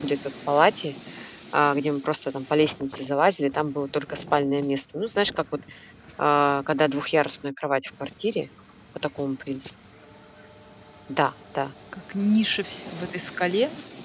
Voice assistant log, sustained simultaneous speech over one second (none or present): none